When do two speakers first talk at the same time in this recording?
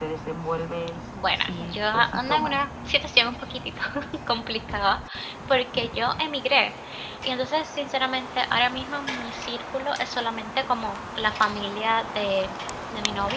1.4 s

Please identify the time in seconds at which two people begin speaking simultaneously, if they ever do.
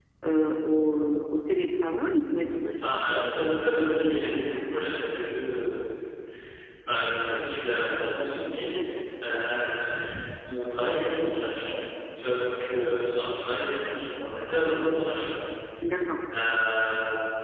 2.8 s

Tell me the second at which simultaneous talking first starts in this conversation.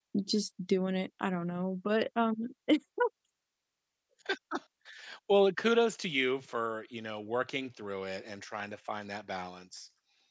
none

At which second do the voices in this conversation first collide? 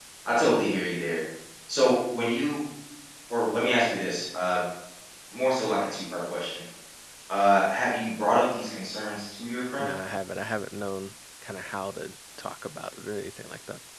none

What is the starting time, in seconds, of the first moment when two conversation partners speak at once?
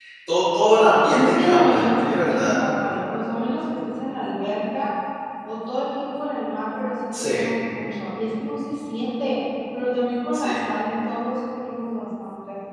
1.1 s

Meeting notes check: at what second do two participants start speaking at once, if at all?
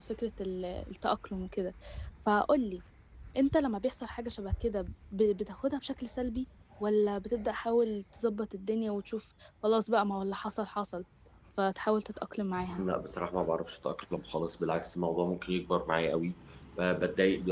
none

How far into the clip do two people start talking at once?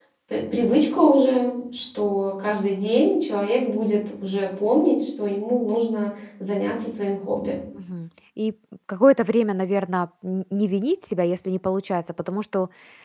none

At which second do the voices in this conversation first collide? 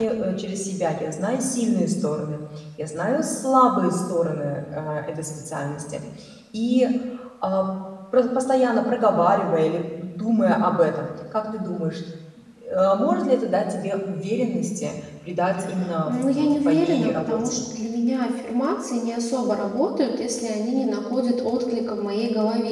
16.1 s

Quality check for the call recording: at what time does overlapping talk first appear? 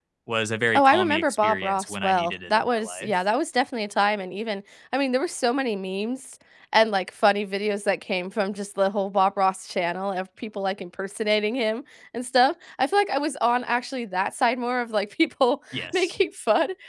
0.7 s

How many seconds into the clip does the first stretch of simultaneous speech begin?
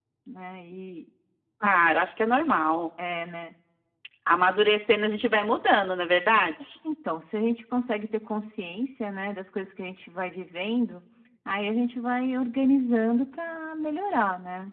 none

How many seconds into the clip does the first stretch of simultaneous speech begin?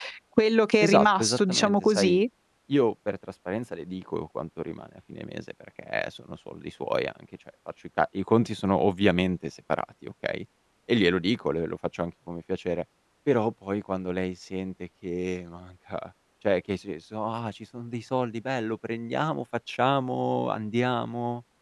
0.8 s

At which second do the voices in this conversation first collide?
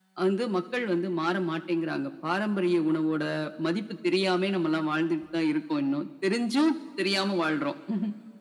none

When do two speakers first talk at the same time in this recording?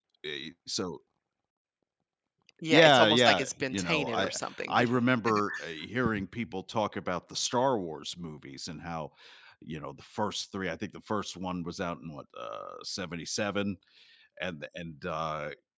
2.7 s

